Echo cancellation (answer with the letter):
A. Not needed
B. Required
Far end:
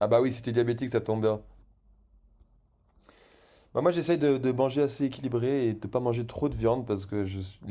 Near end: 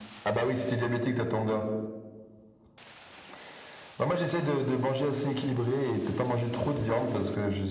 B